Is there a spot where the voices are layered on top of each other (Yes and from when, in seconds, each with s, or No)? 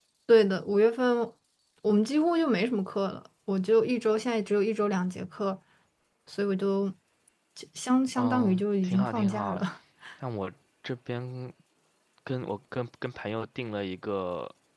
Yes, from 8.2 s